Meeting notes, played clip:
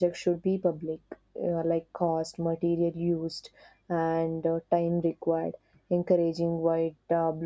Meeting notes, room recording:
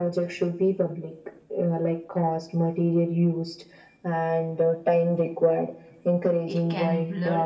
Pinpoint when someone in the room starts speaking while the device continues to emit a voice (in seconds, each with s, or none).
6.4 s